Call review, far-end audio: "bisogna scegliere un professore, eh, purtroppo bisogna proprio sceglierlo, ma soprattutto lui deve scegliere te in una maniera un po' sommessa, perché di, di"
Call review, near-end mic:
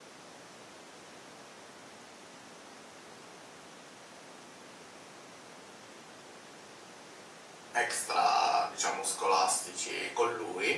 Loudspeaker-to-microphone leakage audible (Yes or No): No